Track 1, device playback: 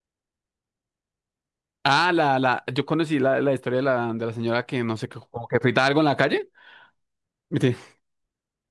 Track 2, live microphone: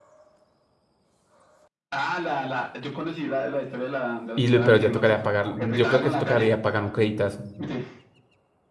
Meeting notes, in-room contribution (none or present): present